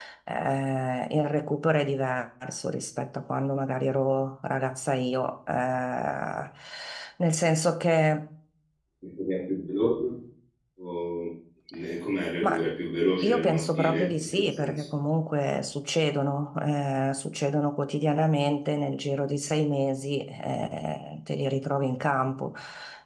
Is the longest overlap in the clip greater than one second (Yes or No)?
Yes